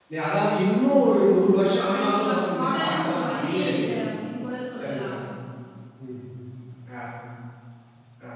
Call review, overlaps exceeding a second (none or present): present